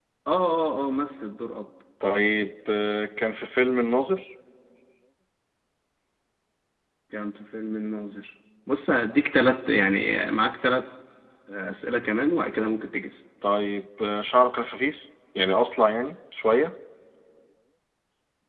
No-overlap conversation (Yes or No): Yes